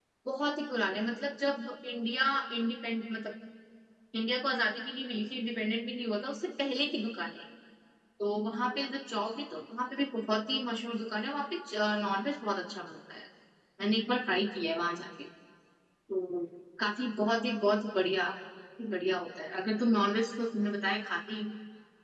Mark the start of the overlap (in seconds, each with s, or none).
none